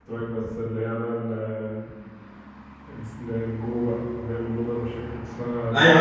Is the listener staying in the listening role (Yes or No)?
No